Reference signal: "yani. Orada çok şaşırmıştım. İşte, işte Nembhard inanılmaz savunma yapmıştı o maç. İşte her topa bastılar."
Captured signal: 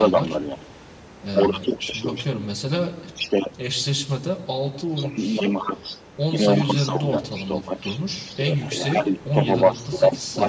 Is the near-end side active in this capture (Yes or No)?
Yes